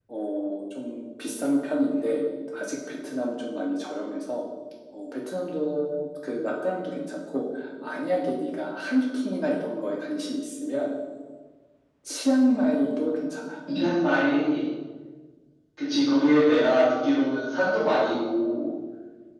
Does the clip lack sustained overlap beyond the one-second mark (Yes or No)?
Yes